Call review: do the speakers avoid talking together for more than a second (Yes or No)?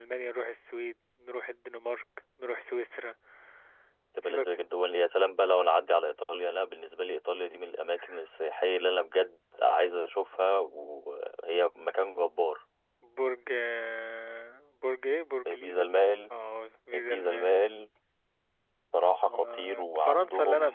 No